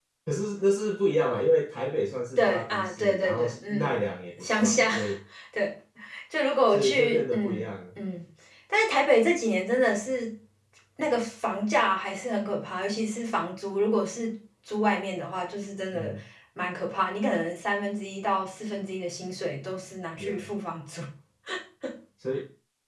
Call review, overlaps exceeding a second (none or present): present